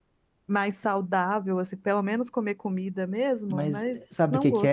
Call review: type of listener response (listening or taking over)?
taking over